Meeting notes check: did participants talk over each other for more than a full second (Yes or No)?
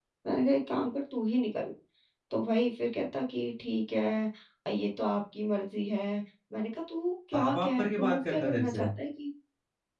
Yes